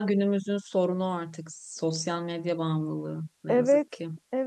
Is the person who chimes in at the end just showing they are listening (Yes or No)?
No